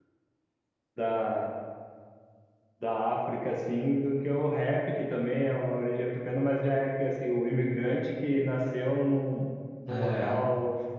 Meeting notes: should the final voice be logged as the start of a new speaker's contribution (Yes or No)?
No